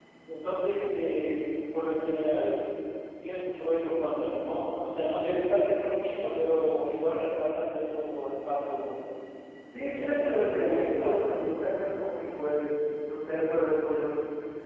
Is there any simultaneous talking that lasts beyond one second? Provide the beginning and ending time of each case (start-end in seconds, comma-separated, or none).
9.8-11.4